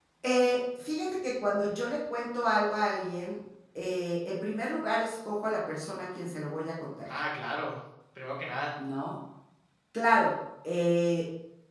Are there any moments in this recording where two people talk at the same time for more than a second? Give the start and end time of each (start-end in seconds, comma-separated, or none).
none